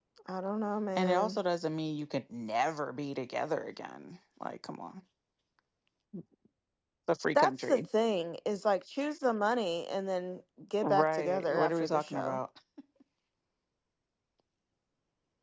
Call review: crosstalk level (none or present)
present